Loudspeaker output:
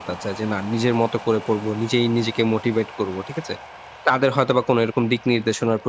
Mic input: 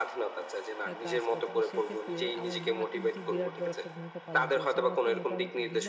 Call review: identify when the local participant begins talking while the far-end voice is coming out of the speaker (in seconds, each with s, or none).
0.9 s